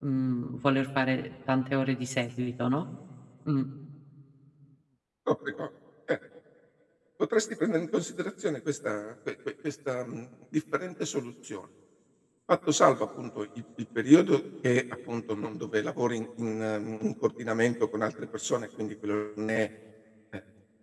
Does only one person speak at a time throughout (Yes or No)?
Yes